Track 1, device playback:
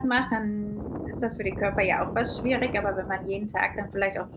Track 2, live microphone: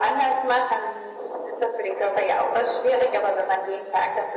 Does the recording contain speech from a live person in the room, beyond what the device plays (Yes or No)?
No